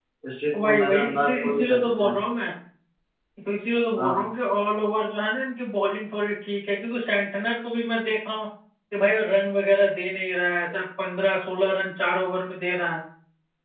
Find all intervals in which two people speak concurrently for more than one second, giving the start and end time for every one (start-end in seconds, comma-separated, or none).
0.6-2.2